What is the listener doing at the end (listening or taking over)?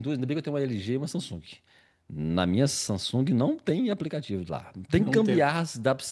listening